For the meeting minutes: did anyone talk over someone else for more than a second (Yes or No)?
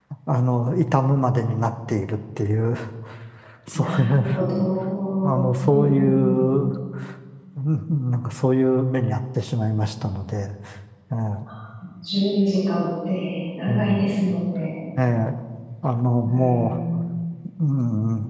Yes